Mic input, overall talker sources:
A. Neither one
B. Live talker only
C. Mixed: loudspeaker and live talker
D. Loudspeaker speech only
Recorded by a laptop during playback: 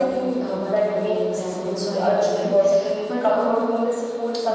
C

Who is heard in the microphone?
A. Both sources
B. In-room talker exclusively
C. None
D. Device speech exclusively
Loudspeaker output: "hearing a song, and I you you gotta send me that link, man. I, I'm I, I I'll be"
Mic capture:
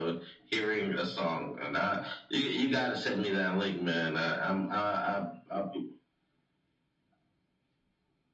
D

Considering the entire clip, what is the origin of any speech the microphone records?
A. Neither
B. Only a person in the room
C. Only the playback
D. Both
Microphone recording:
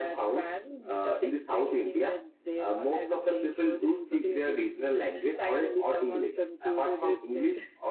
C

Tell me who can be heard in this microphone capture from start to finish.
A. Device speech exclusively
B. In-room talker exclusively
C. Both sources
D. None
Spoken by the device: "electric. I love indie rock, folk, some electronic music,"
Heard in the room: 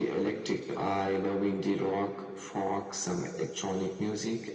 A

